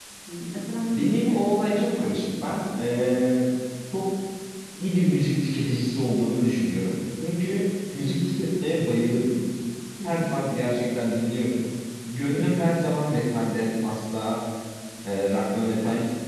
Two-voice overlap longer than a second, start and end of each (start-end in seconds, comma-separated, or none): 0.9-2.2